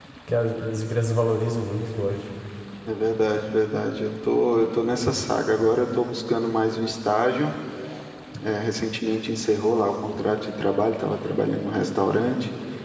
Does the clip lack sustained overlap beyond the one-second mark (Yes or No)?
Yes